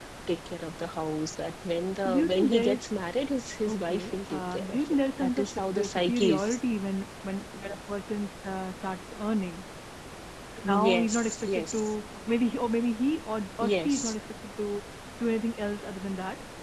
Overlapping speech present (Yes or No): Yes